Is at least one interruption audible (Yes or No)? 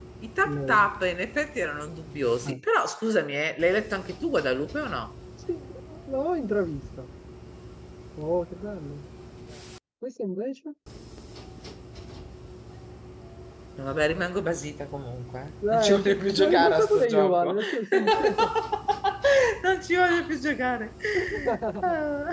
Yes